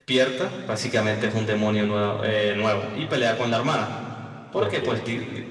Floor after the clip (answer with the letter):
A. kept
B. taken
A